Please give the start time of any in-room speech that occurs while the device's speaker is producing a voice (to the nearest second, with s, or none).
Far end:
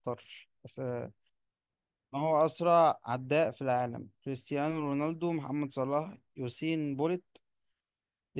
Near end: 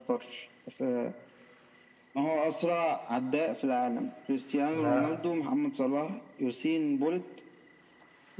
5 s